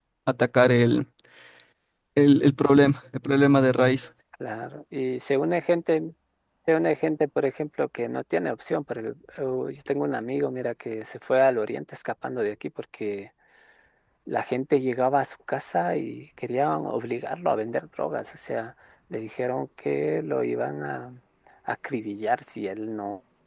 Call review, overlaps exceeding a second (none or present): none